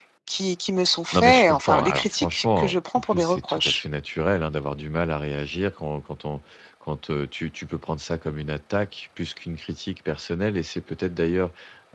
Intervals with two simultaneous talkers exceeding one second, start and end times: 1.1-3.8

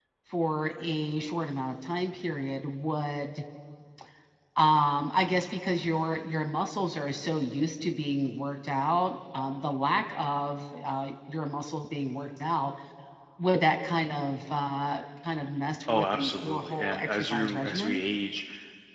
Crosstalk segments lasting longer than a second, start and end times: 15.9-18.0

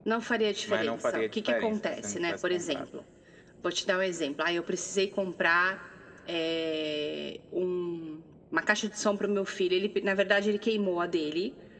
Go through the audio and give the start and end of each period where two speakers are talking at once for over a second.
0.7-2.9

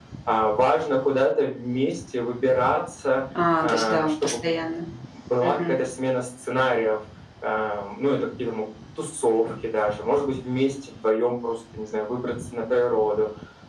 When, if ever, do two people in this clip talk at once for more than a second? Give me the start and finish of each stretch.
3.6-4.8

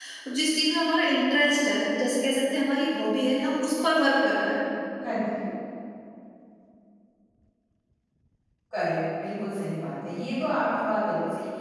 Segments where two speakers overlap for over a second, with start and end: none

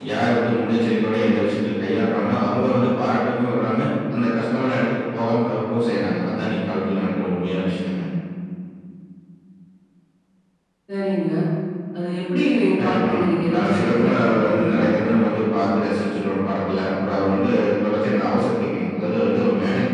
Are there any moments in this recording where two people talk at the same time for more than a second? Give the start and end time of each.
12.8-14.8

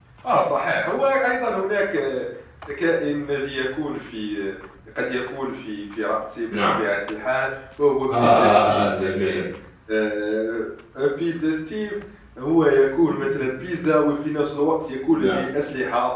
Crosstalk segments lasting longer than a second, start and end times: 8.2-9.4

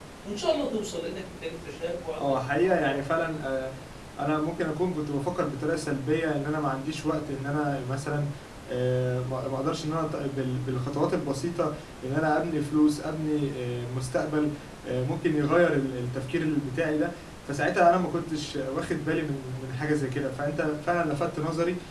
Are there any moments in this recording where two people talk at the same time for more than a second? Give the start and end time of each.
2.2-3.6

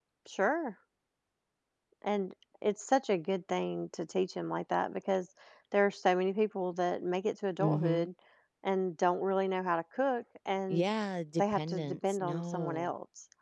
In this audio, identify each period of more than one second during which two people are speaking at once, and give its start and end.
11.4-12.9

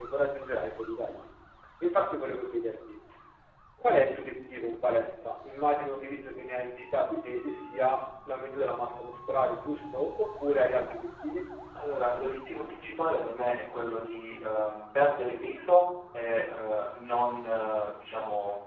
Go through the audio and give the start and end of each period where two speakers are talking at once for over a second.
none

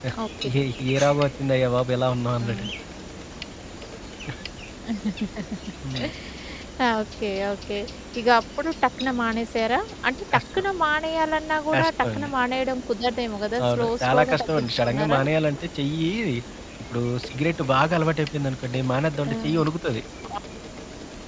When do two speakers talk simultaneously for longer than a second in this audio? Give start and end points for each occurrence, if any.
13.7-15.2

